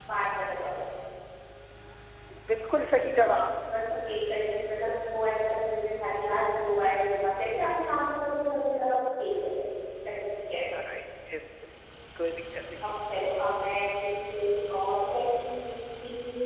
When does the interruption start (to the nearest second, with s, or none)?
none